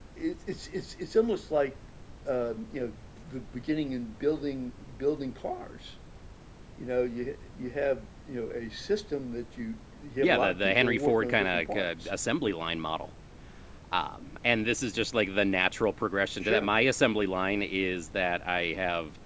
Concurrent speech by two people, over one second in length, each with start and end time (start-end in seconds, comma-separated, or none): 10.2-12.1